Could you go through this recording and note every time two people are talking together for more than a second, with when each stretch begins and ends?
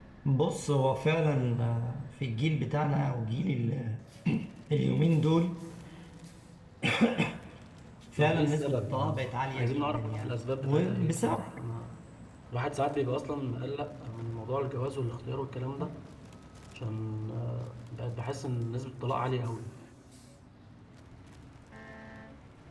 8.2-11.4

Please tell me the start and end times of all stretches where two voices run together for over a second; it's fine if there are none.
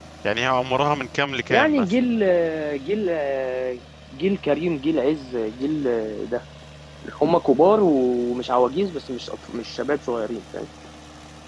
none

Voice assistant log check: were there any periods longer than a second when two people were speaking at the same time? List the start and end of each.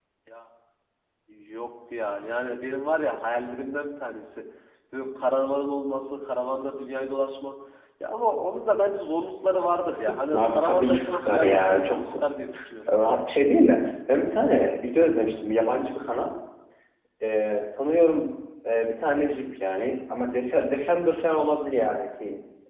10.3-12.3

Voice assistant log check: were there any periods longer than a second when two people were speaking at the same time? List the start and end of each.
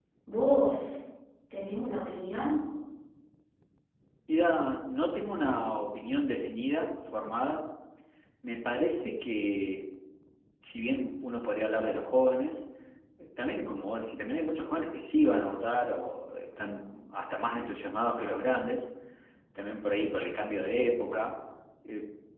none

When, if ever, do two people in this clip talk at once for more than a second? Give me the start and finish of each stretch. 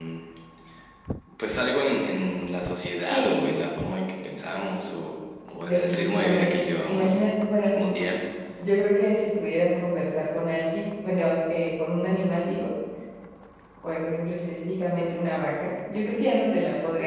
5.6-7.2

